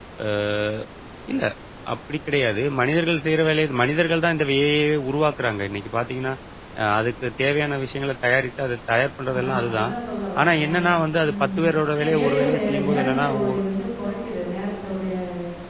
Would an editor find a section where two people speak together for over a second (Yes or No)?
Yes